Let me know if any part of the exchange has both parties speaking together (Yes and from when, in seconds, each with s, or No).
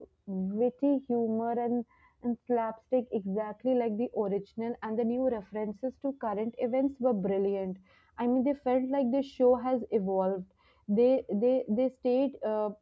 No